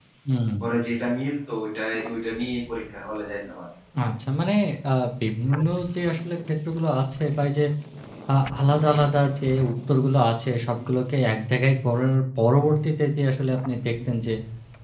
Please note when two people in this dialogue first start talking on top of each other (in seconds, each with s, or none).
none